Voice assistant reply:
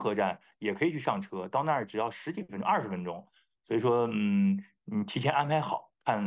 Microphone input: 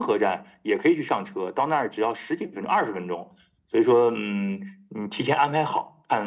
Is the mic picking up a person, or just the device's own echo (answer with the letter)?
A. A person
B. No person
B